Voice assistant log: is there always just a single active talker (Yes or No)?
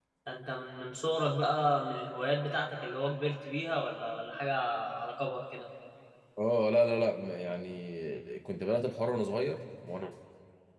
Yes